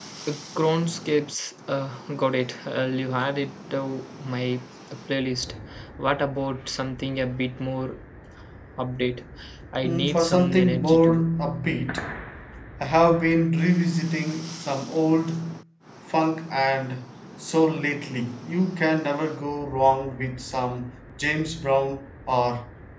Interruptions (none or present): present